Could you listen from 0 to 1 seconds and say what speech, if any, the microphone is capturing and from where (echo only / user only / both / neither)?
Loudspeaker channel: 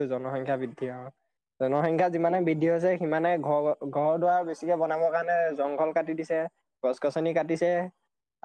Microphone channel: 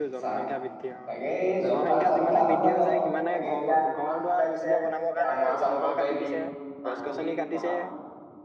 both